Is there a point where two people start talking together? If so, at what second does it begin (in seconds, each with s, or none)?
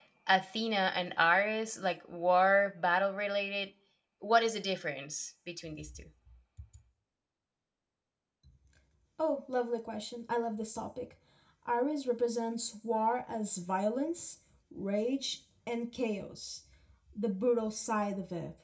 none